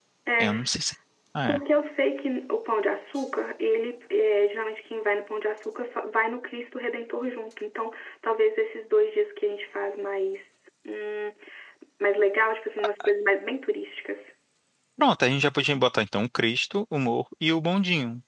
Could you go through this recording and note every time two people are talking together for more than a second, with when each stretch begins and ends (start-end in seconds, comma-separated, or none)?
none